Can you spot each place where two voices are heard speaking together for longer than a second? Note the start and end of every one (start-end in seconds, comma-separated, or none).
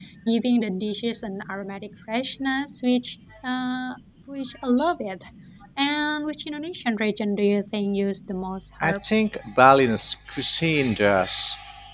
none